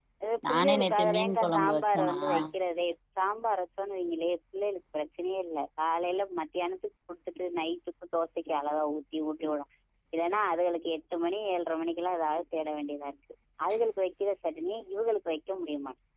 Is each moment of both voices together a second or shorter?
No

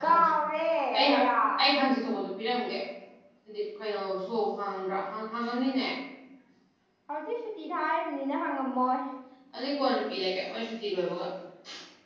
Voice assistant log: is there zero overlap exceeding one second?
Yes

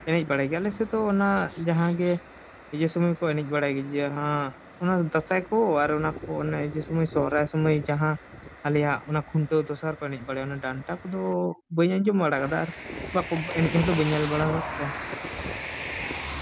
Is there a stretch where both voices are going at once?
No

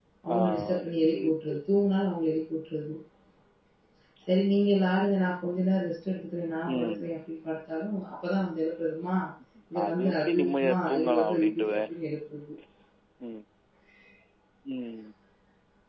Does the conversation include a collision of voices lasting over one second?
Yes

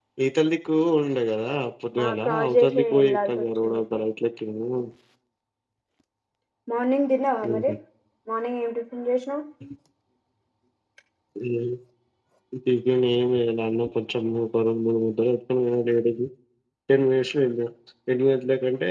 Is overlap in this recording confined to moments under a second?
No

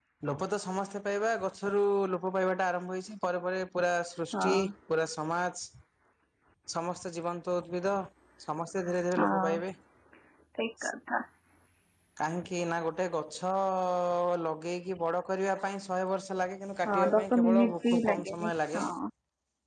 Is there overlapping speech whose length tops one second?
Yes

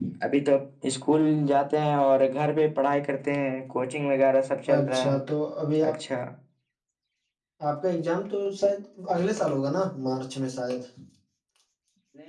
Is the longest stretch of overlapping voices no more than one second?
Yes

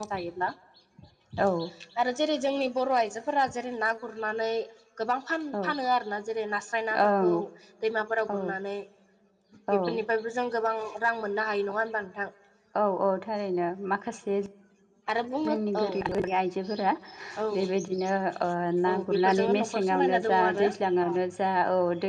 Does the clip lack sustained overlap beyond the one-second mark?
No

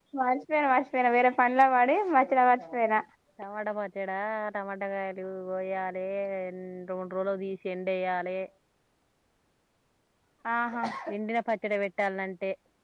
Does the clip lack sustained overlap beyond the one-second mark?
Yes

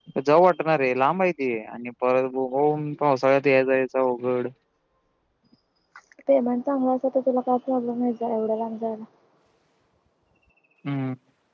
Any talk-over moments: No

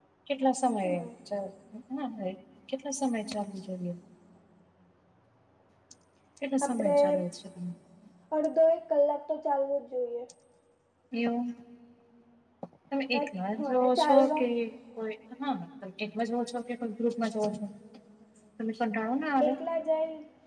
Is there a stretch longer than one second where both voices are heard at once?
Yes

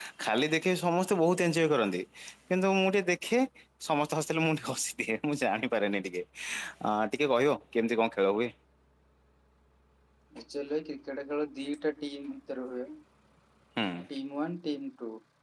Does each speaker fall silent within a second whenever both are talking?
Yes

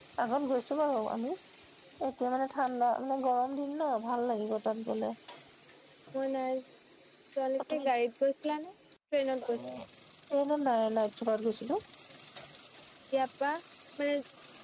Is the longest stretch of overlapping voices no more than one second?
Yes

